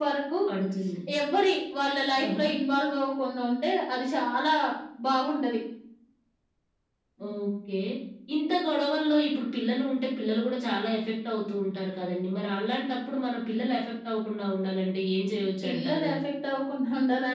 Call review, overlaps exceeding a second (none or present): none